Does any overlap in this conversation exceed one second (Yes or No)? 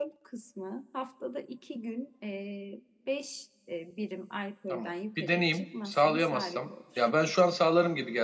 Yes